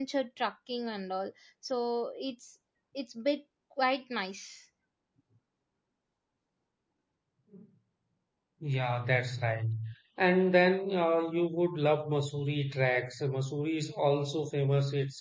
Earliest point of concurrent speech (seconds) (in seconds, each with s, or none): none